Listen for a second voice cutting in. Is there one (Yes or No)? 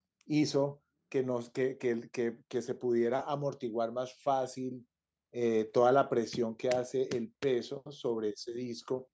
No